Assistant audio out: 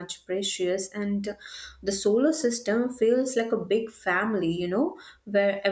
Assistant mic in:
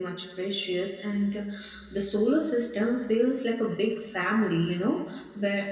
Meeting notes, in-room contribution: none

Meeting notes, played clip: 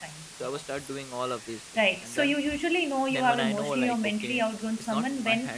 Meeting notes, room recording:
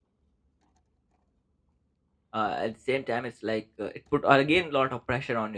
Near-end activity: present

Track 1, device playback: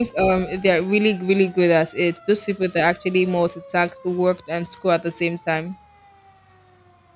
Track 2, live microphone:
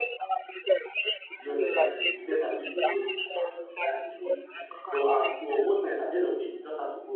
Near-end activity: present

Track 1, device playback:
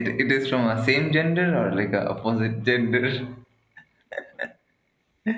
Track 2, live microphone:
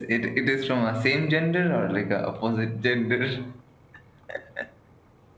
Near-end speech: none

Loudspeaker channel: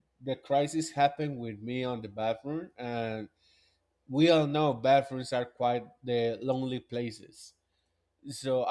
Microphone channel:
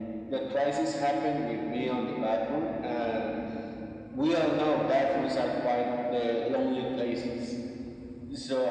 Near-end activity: none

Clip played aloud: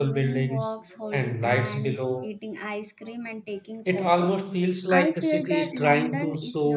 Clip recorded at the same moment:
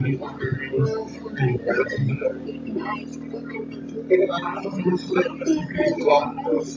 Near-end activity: none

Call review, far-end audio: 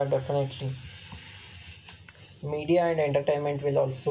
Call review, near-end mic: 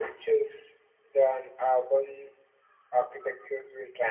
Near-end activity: present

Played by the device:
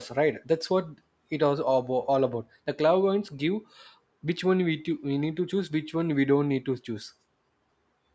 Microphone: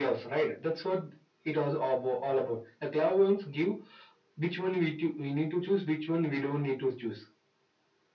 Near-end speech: none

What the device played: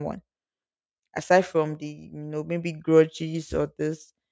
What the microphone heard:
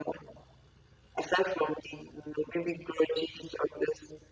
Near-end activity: none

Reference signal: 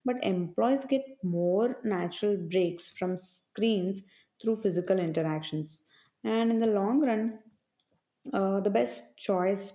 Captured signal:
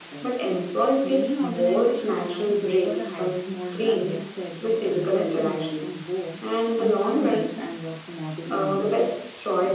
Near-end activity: present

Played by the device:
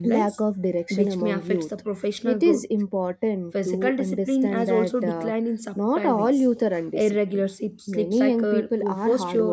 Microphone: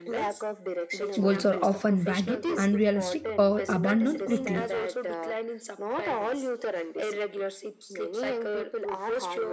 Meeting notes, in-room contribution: present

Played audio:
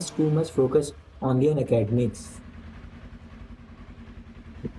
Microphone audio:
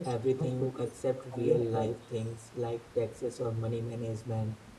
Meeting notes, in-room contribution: present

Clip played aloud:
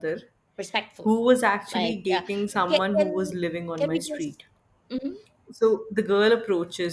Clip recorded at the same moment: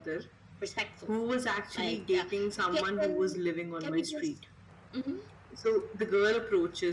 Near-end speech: none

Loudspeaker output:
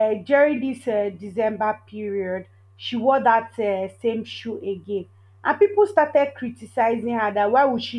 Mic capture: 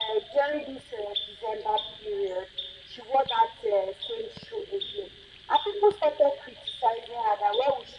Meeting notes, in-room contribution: none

